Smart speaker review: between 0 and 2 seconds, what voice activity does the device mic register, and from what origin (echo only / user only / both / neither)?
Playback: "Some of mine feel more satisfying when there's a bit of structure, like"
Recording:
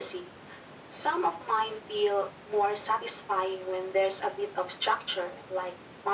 echo only